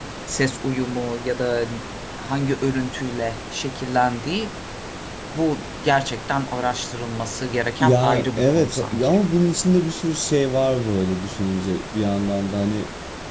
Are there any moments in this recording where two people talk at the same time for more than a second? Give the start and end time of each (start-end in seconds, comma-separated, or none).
7.8-9.1